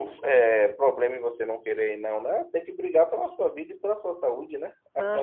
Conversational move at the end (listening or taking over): taking over